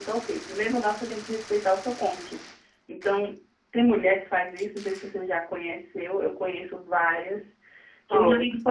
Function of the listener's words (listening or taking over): listening